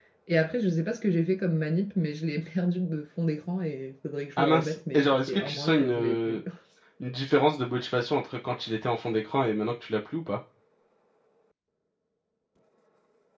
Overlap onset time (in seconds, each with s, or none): 4.4 s